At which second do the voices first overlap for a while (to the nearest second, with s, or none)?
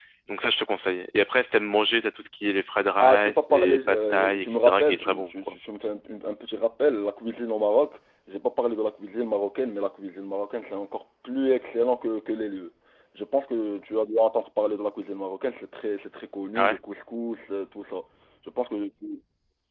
3 s